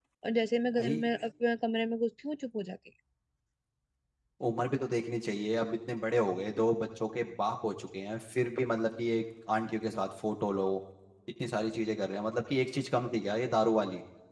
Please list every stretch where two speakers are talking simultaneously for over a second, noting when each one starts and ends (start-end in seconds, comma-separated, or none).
none